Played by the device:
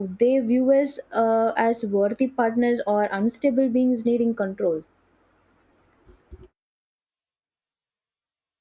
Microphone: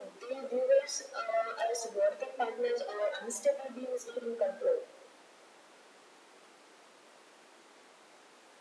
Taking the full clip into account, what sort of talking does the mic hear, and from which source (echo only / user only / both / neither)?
echo only